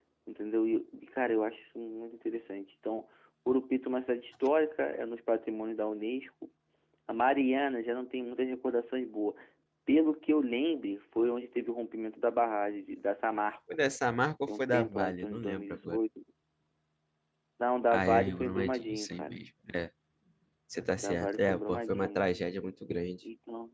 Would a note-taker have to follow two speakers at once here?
Yes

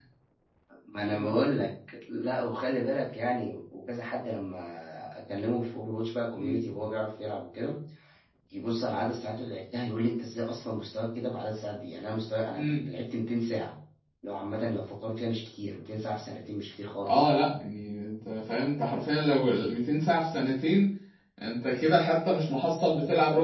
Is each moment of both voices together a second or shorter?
Yes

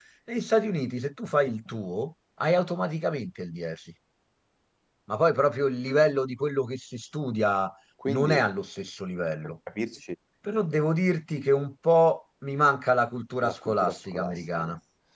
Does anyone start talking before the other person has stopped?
Yes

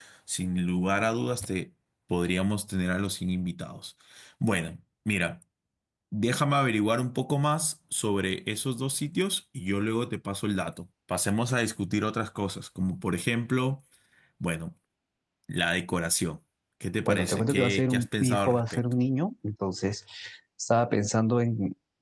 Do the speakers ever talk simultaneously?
Yes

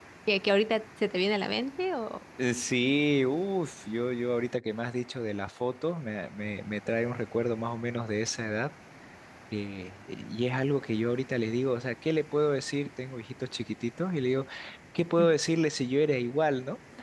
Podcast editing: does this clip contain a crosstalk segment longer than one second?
No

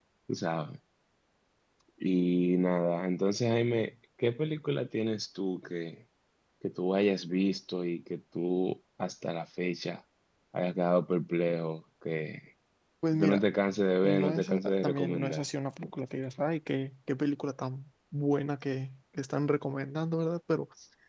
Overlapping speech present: Yes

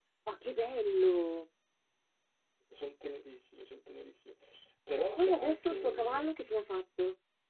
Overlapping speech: Yes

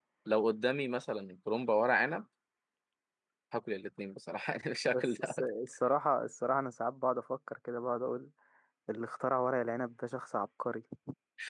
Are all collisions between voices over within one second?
Yes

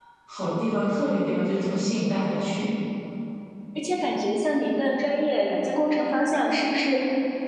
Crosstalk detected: No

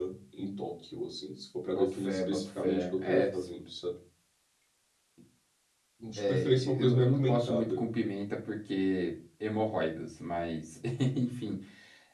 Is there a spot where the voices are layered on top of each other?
Yes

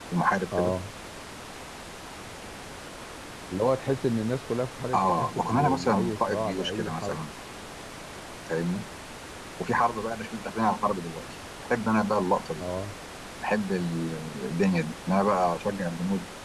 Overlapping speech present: Yes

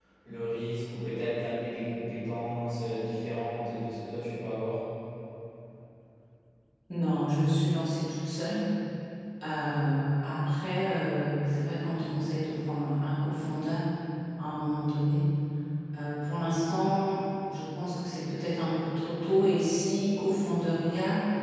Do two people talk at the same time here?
No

